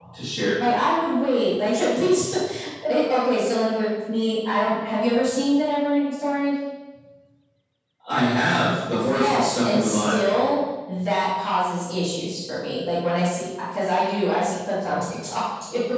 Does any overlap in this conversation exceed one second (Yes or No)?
Yes